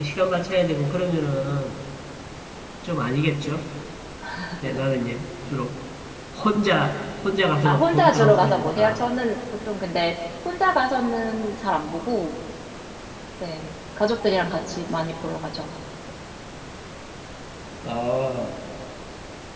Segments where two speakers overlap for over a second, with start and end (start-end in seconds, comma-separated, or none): 7.7-9.0